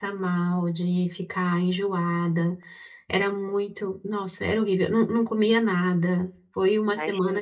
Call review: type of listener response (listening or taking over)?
taking over